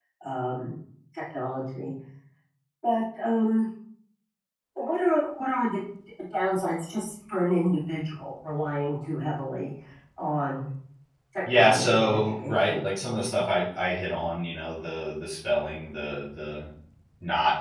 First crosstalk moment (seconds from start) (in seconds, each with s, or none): 11.5 s